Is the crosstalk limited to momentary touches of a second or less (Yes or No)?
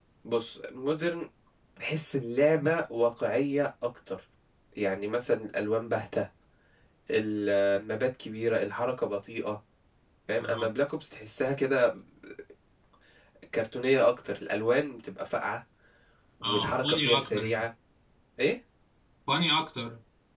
No